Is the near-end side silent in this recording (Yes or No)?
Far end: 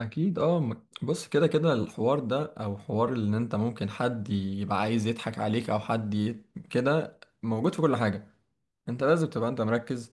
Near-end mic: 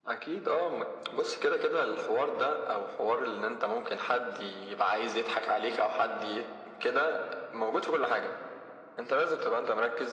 Yes